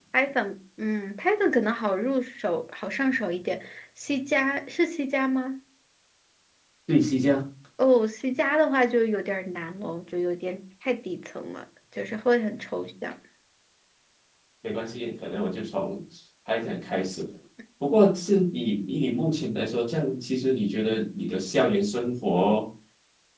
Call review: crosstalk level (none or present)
none